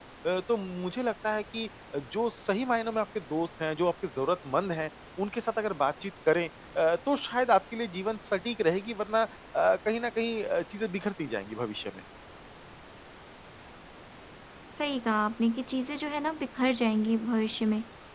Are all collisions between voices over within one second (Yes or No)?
Yes